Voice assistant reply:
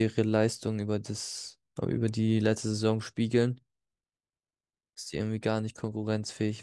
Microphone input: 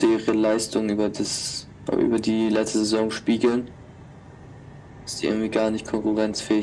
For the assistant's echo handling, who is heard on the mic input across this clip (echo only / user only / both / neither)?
echo only